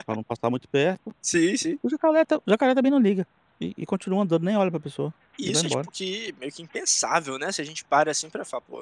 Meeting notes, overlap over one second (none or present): none